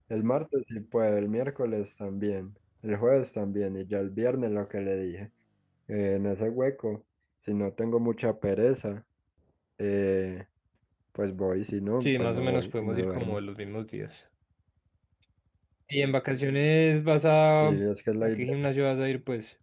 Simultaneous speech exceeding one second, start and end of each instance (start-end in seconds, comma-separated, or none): 12.0-13.4